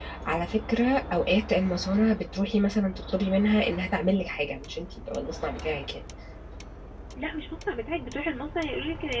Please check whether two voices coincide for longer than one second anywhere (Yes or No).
No